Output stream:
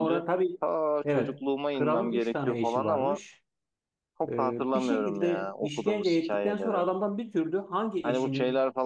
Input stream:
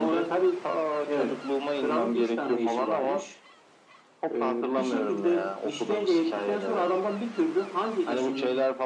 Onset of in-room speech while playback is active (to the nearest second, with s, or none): none